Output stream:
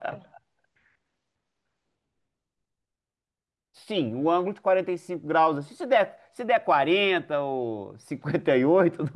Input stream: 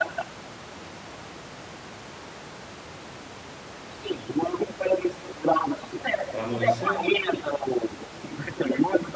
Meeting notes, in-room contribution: present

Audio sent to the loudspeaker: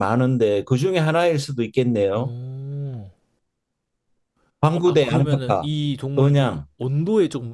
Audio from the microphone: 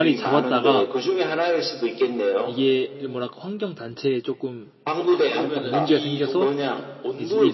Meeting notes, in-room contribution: present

